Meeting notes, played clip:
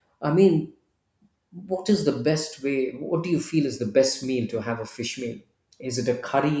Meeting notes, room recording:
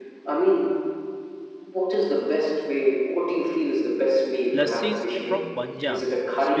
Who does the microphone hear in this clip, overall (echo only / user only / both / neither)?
both